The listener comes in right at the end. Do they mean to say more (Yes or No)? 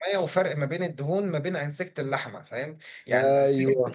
No